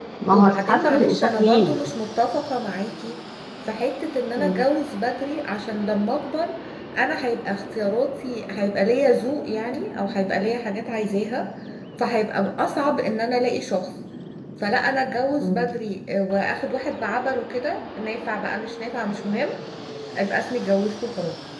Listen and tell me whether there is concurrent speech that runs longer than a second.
Yes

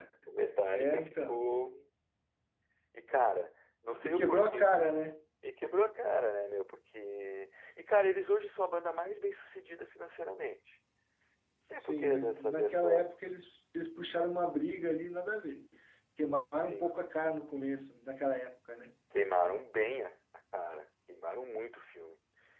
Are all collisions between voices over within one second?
No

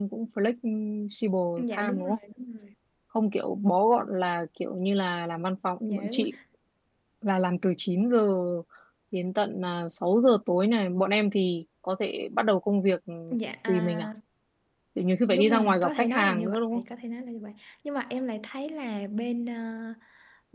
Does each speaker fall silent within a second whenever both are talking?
No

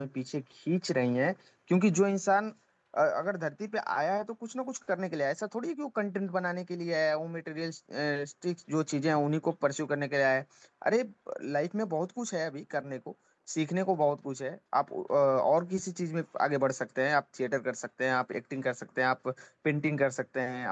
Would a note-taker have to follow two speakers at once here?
No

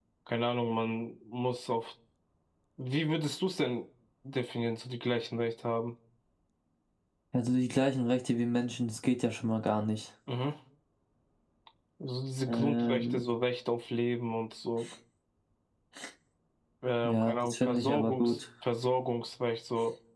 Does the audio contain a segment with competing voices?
Yes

